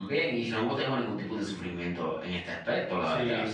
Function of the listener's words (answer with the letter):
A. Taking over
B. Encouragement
A